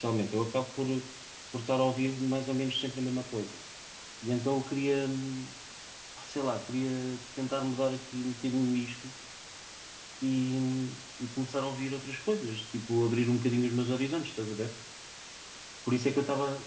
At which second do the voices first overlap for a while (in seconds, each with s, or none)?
none